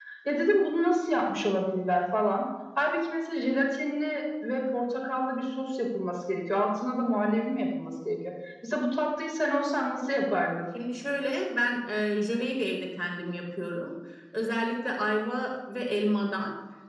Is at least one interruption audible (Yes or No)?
No